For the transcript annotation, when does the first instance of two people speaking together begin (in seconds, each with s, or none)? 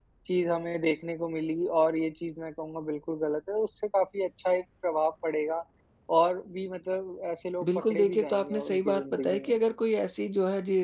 7.6 s